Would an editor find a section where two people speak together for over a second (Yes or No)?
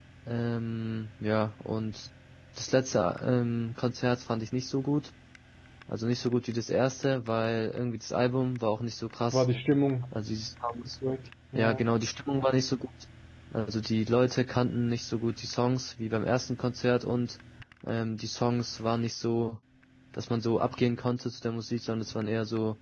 No